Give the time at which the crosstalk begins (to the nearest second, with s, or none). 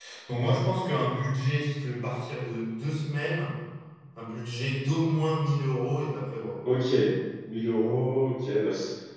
none